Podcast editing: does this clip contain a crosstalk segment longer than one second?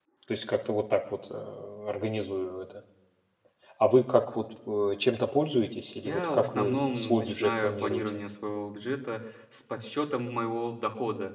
Yes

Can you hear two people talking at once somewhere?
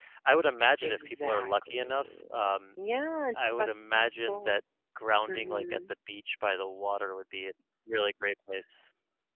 Yes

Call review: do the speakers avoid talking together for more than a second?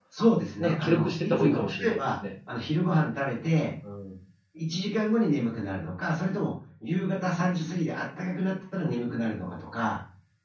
No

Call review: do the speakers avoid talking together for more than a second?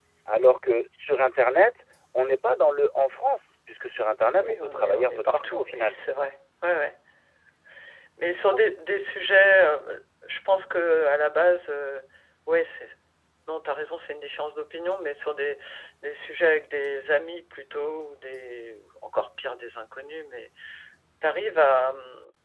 No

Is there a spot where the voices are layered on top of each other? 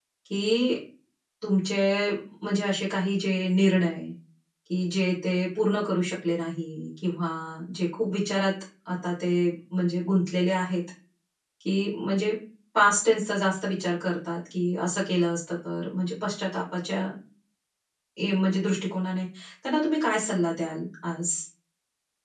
No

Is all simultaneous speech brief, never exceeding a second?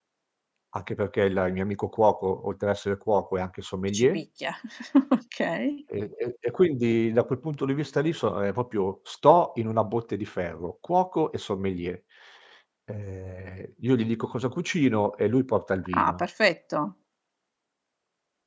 Yes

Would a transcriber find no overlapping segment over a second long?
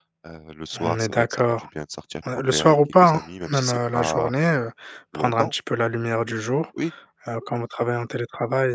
No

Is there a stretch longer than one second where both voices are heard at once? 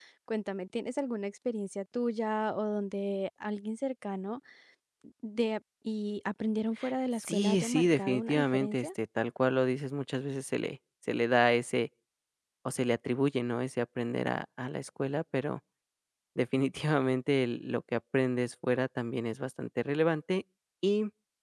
Yes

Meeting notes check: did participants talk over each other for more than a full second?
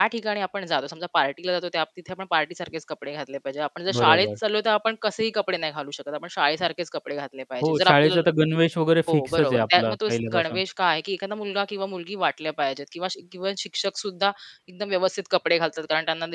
Yes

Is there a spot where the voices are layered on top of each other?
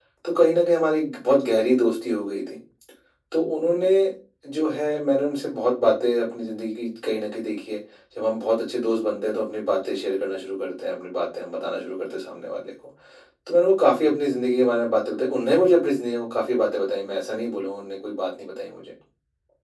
No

